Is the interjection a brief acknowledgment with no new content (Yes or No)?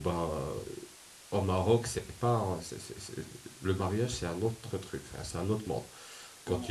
Yes